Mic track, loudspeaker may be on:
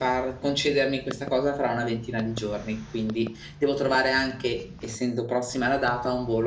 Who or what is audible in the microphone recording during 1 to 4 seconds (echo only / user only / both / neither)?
echo only